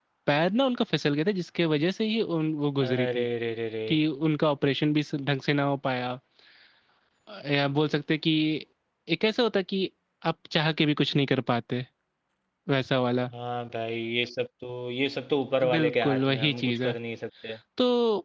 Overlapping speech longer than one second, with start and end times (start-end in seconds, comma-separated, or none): 15.7-16.9